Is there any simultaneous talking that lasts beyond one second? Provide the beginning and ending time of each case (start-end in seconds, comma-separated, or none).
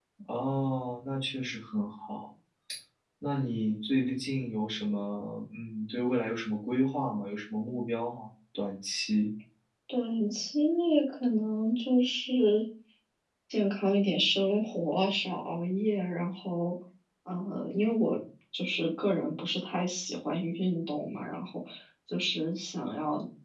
none